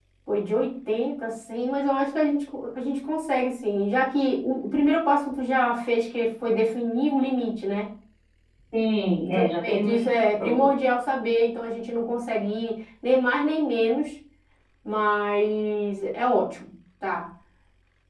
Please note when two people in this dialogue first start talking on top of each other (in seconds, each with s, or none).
9.3 s